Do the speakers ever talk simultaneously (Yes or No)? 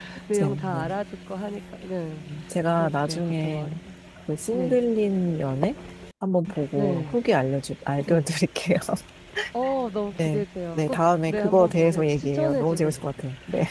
Yes